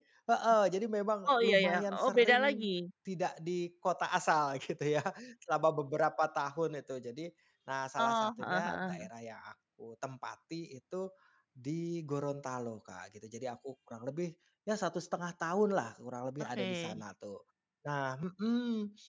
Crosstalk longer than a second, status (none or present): present